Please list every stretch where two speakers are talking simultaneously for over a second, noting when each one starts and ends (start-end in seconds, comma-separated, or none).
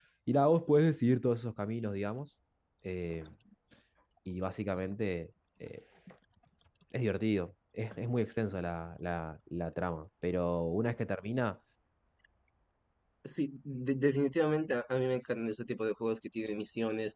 none